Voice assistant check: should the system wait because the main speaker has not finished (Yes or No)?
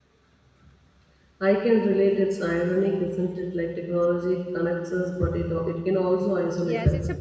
No